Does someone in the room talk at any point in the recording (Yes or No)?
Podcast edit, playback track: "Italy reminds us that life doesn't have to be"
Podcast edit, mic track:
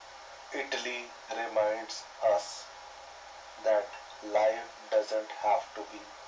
No